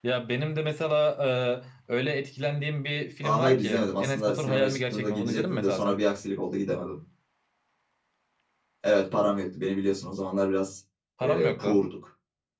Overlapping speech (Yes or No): Yes